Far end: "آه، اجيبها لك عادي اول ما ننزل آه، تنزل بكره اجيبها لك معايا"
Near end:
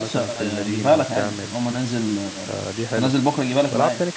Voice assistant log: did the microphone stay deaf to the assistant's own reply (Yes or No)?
No